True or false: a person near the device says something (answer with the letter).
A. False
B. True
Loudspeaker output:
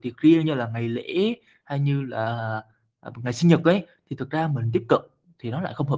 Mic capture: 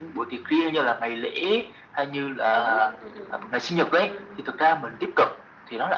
B